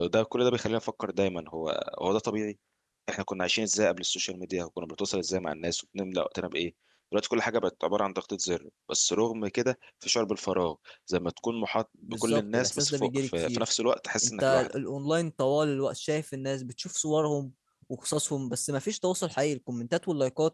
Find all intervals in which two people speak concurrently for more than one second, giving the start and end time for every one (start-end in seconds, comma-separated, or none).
12.1-13.6